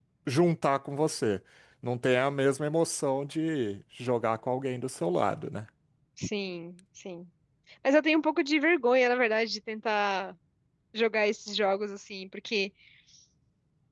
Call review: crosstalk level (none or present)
none